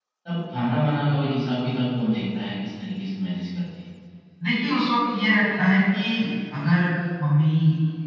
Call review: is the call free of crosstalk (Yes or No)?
Yes